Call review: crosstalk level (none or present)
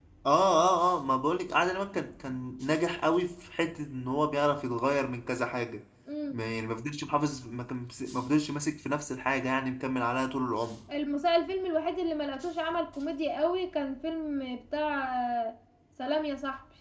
none